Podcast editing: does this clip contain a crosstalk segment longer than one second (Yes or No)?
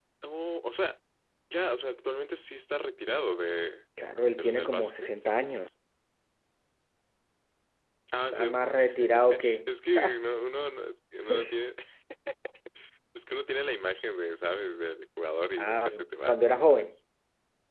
Yes